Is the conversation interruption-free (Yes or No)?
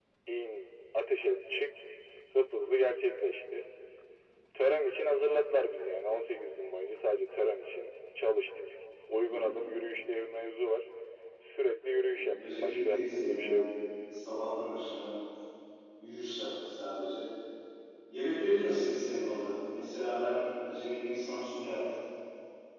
No